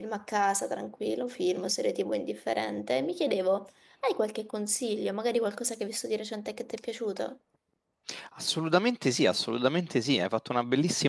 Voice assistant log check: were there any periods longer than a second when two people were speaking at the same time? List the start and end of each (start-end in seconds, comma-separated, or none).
none